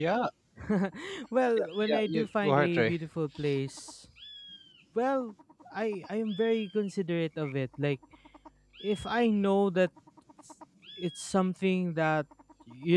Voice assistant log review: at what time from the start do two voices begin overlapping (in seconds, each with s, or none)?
1.6 s